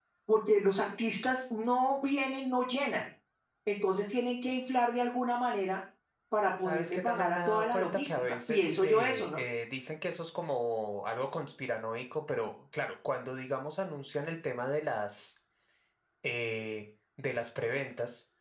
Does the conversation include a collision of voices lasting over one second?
Yes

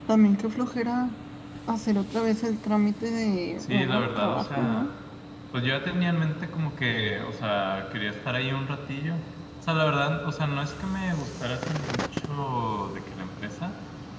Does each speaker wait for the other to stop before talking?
No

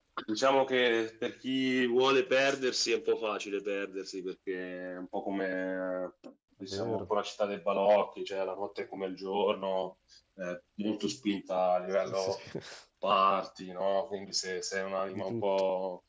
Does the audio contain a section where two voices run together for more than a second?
No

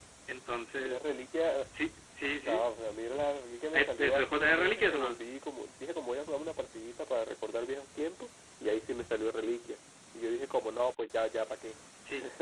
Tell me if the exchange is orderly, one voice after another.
No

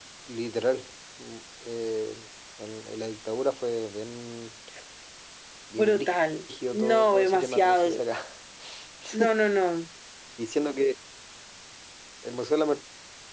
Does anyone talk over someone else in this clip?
Yes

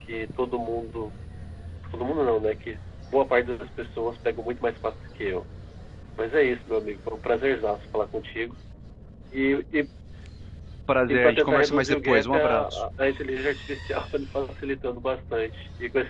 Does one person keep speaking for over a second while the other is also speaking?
Yes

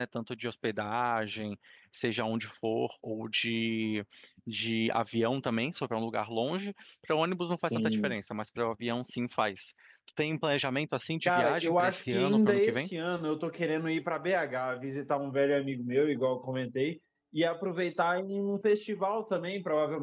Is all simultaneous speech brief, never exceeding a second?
No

